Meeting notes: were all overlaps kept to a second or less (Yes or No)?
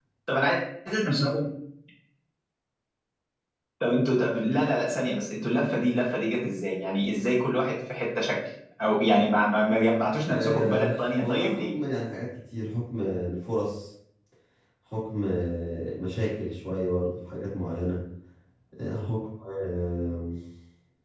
No